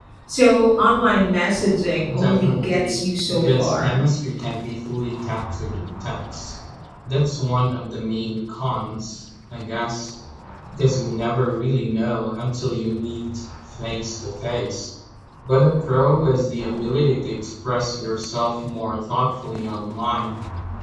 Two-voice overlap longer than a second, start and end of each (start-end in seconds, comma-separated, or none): 2.1-4.0